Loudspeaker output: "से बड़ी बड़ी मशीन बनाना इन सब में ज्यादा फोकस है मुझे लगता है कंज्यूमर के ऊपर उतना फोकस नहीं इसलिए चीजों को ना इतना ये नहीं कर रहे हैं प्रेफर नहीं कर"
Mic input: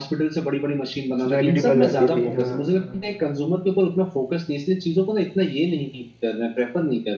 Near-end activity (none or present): present